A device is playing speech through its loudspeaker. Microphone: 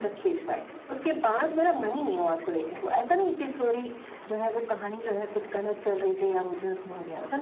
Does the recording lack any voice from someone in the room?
Yes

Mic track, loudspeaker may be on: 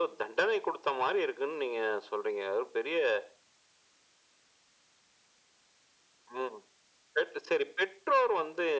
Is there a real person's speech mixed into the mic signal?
No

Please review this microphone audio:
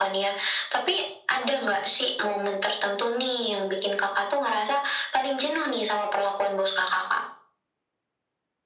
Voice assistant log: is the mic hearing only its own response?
Yes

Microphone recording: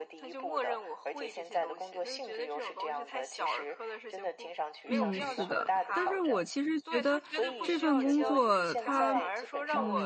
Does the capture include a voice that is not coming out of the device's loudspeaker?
Yes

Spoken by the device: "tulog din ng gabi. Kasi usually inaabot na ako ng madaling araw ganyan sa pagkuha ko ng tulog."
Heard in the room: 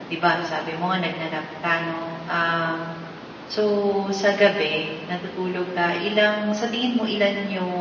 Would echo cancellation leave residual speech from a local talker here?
Yes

